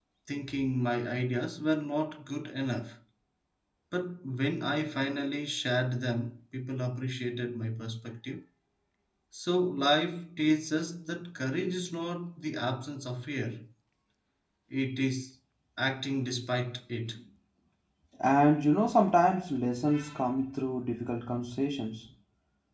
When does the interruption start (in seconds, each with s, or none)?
none